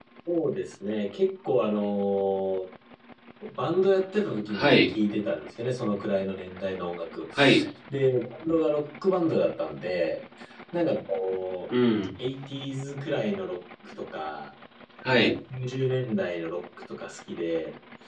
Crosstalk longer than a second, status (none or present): none